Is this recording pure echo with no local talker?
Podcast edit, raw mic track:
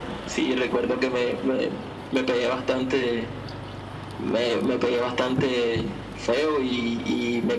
Yes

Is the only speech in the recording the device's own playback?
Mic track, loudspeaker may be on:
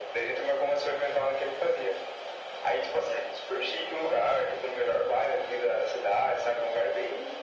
Yes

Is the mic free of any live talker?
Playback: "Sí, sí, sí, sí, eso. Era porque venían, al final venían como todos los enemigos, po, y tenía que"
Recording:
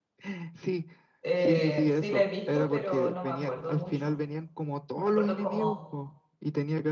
No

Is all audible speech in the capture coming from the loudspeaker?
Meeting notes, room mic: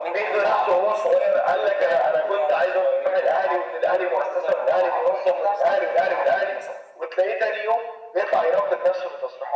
Yes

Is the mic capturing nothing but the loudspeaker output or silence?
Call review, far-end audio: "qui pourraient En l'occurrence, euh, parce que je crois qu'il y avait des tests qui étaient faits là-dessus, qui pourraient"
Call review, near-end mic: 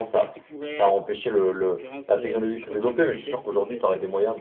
No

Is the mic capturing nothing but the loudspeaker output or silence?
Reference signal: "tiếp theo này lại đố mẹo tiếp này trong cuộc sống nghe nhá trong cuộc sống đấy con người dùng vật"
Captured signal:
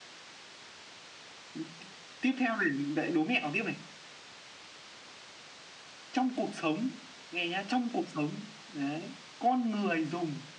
Yes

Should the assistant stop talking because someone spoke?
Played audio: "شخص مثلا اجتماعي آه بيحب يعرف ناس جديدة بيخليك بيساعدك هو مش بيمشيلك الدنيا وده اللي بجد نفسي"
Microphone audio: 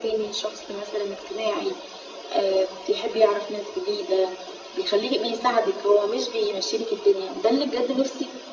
No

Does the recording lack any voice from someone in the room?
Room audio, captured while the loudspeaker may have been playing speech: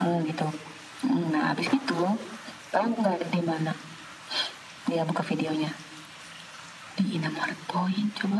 Yes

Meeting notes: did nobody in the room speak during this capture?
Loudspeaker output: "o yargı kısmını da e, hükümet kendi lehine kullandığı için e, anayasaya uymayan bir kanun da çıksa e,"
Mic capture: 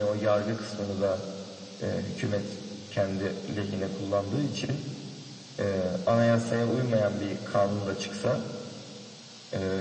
Yes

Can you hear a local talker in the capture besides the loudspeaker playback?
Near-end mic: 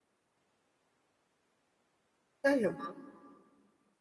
Yes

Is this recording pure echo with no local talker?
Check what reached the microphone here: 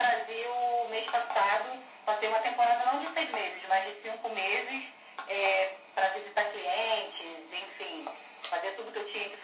Yes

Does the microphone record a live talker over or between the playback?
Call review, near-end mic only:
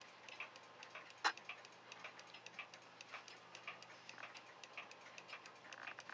No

